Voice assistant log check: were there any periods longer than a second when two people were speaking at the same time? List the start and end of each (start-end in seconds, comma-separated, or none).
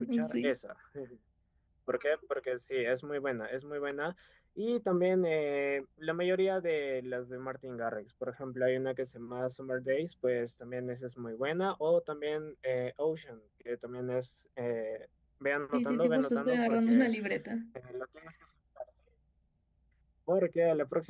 15.7-17.1